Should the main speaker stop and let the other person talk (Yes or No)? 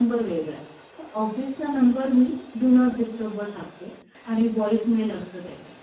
No